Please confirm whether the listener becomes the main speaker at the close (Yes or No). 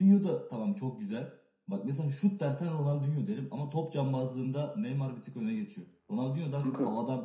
No